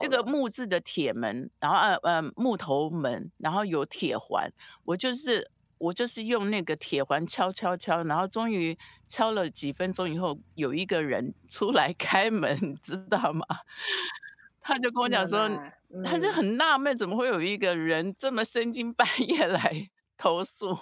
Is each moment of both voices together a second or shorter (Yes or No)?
Yes